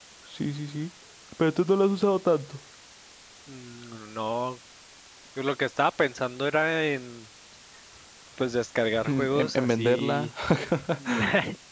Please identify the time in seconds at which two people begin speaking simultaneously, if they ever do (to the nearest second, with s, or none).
9 s